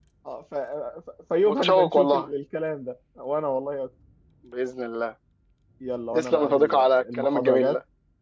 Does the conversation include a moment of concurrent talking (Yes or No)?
Yes